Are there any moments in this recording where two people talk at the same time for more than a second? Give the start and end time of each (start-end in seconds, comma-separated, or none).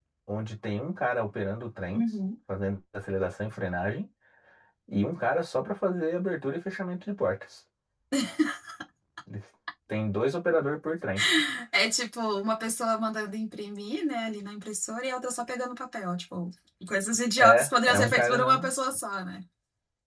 17.4-18.7